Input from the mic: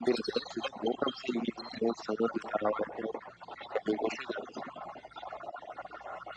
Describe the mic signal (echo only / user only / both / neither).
echo only